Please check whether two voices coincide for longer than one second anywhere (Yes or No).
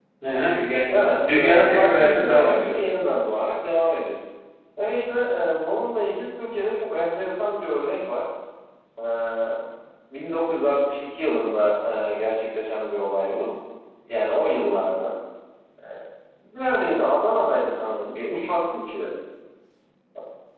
Yes